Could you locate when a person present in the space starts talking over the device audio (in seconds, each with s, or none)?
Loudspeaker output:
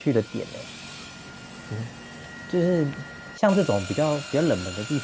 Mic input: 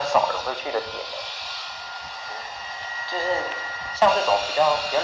none